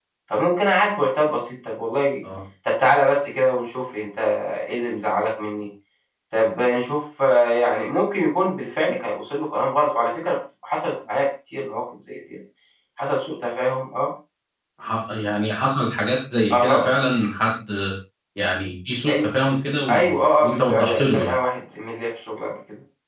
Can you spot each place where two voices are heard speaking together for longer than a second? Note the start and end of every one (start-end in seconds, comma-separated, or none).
19.9-21.3